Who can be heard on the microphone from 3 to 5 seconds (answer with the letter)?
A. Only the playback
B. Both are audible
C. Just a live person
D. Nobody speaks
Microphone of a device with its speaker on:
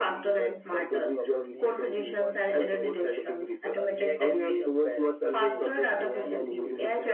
B